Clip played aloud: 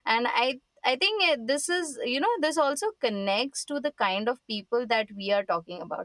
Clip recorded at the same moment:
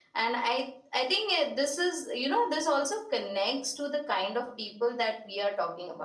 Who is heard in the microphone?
echo only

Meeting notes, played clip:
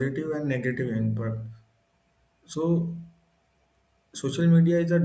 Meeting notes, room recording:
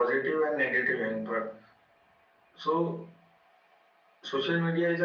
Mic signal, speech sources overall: echo only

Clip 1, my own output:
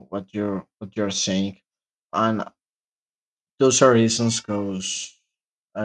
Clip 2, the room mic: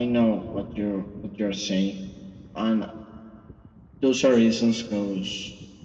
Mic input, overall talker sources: echo only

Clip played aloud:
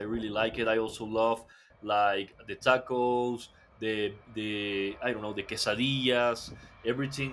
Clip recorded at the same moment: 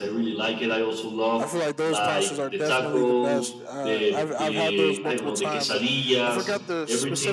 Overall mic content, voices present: both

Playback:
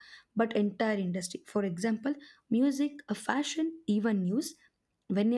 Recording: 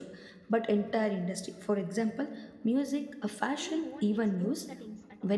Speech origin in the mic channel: both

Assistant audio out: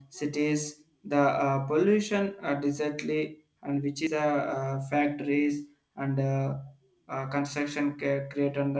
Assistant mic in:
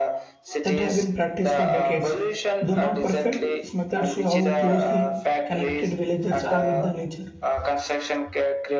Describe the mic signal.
both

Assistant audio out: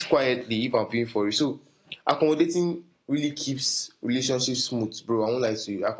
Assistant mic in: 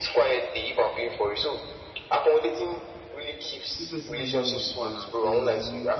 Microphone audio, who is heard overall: both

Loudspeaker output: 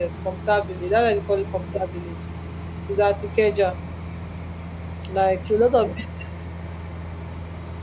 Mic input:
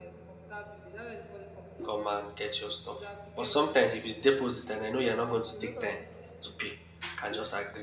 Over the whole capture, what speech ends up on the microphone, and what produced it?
both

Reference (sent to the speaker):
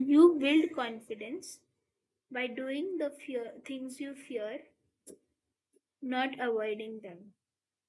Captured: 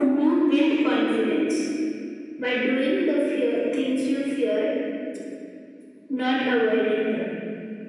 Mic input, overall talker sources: echo only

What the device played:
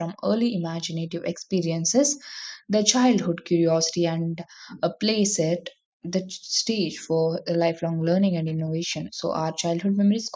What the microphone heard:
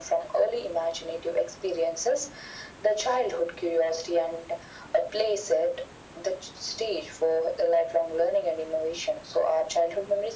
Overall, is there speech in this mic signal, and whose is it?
echo only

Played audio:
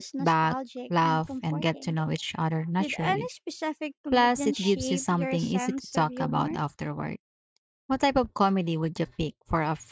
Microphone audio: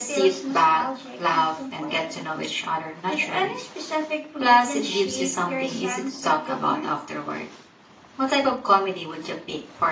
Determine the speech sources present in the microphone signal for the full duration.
echo only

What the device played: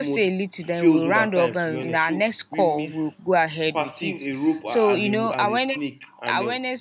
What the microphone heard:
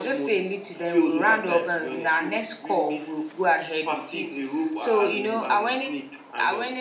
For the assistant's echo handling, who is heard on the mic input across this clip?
echo only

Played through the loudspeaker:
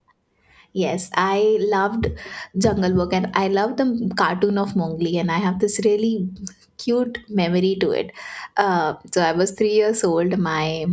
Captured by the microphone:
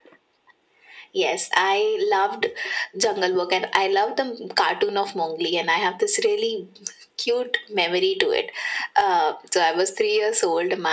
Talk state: echo only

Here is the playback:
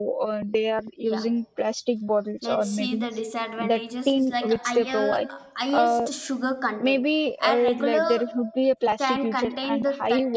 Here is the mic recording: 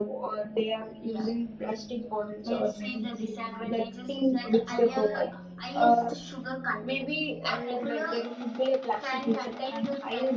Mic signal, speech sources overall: echo only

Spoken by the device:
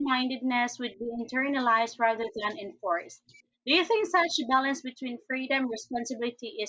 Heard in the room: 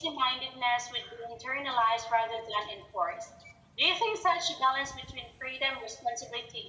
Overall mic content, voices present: echo only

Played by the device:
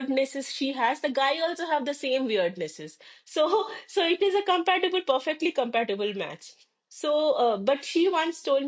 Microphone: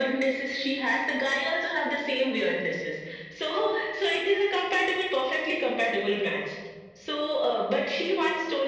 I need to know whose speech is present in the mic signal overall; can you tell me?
echo only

